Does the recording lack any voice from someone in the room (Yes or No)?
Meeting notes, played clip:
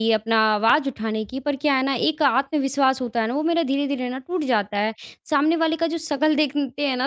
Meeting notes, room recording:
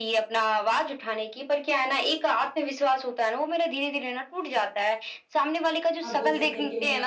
No